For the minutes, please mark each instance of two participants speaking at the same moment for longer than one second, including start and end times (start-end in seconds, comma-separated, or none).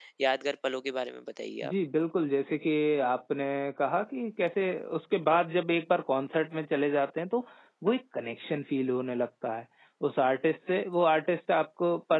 none